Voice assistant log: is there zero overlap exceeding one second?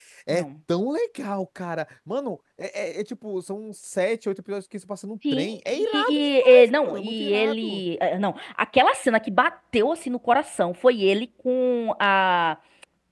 No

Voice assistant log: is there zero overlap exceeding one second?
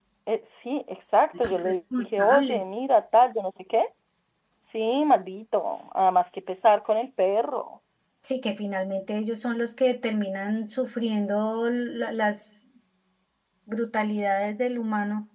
No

